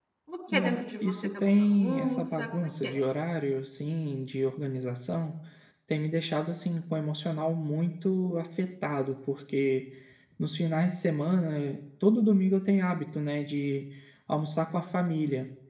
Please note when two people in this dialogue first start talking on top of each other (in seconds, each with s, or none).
0.5 s